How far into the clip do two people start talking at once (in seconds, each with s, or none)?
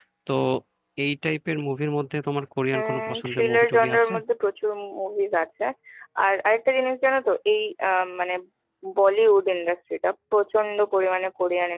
2.7 s